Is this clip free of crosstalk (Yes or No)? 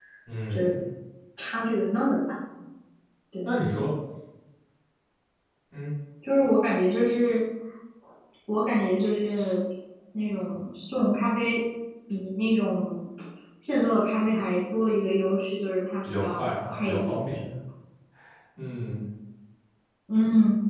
No